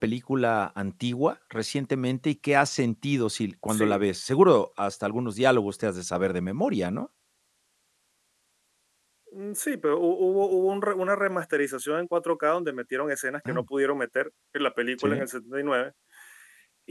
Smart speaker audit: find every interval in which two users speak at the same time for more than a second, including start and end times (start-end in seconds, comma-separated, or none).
none